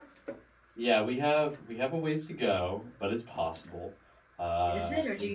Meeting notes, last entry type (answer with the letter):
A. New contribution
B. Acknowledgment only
A